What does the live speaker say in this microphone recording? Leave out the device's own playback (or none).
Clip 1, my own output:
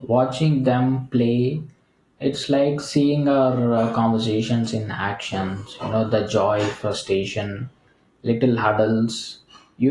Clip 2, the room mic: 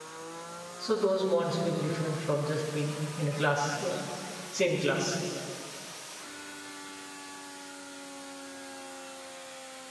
So those bonds feel different from just being in a class, uh, same class.